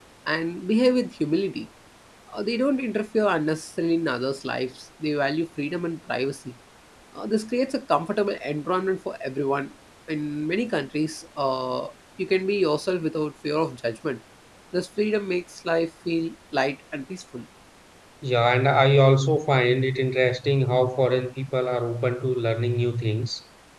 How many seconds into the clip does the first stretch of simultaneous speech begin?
none

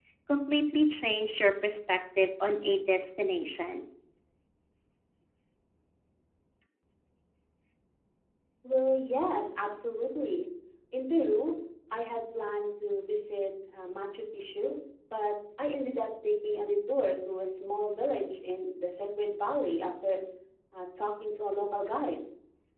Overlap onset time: none

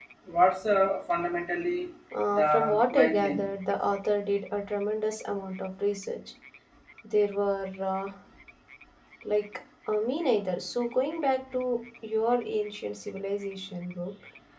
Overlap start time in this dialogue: 2.3 s

